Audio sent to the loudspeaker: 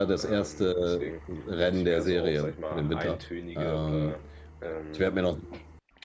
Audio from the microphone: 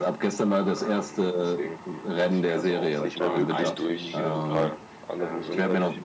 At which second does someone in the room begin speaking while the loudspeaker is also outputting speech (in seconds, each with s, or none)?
3.0 s